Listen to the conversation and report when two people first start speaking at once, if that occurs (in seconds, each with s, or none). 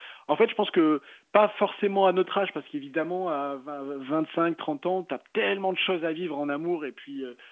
none